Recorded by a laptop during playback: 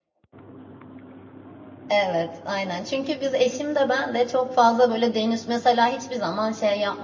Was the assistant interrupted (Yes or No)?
Yes